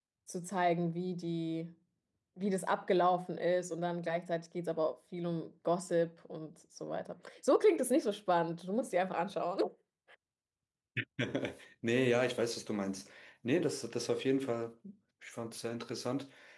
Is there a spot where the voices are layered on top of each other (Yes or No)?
No